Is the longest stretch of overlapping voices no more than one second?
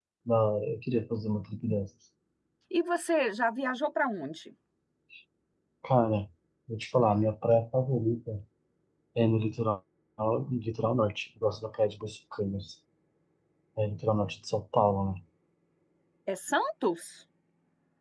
Yes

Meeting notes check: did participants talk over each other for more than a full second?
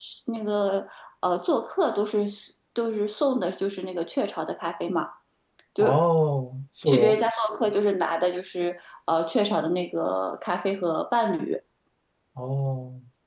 No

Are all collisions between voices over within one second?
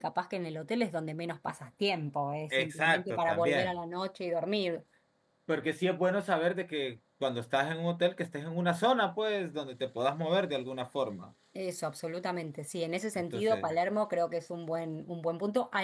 No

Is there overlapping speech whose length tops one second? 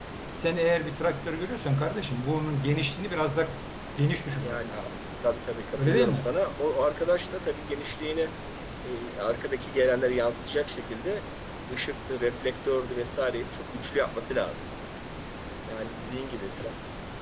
No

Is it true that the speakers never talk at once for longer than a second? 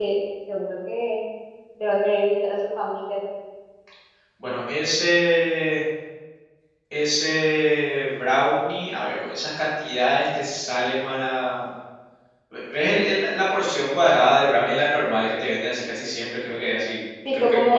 Yes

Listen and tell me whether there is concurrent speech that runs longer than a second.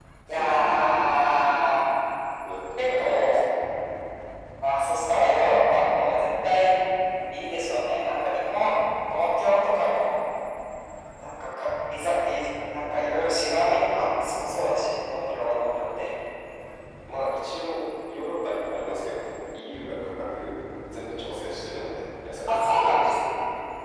Yes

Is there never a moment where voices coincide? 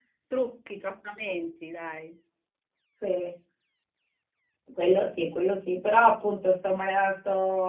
Yes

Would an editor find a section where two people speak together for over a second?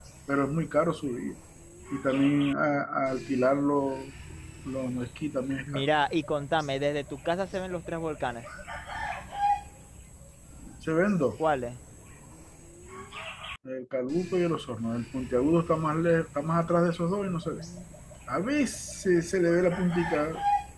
No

